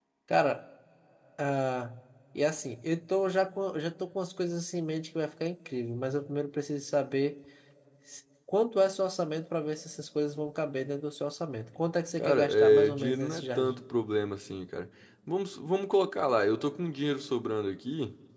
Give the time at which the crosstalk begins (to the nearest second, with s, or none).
12 s